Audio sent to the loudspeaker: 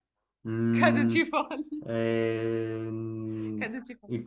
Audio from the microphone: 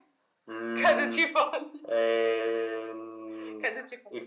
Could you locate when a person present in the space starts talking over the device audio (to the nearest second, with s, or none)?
none